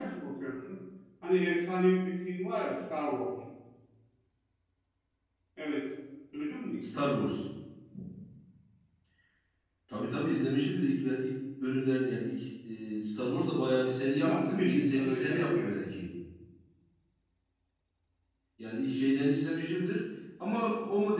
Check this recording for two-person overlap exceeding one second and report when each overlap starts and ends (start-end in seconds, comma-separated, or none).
14.2-15.8